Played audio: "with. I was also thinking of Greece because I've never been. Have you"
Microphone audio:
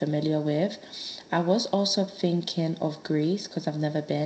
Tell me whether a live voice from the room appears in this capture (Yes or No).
No